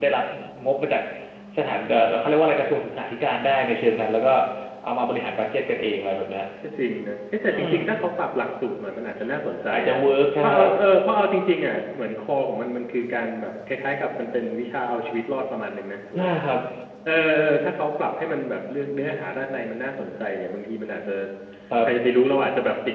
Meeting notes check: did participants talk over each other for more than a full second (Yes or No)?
No